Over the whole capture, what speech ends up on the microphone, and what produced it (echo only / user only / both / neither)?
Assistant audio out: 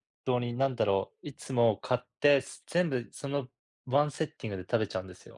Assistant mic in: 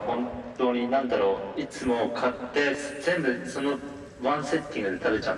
echo only